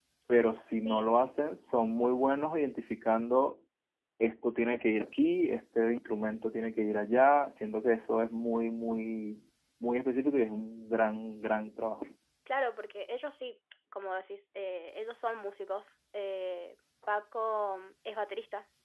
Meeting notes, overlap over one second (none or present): none